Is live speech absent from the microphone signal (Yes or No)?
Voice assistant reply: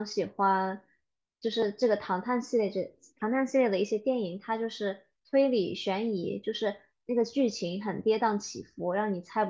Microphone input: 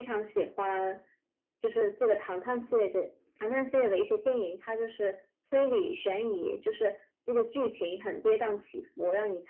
Yes